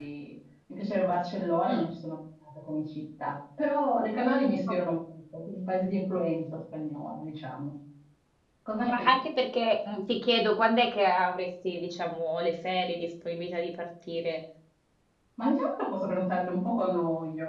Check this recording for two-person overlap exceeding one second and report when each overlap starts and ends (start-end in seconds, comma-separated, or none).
none